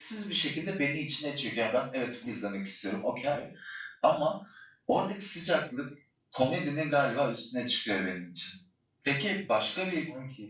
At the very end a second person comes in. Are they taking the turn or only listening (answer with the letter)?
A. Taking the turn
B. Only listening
B